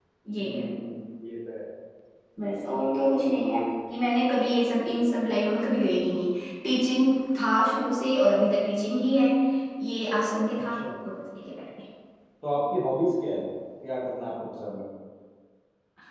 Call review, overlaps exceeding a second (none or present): none